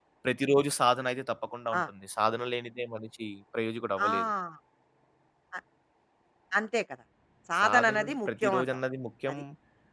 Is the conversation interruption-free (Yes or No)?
No